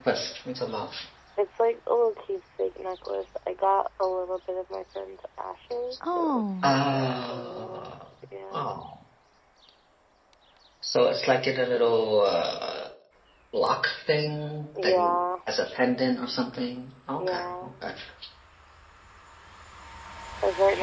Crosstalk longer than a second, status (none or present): present